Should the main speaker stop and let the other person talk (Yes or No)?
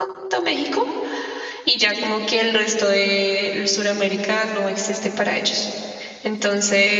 No